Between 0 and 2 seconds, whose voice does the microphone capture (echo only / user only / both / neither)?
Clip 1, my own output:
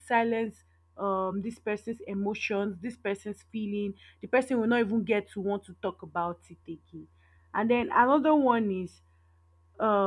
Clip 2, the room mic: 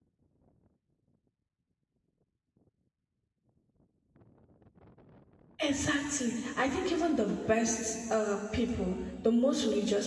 neither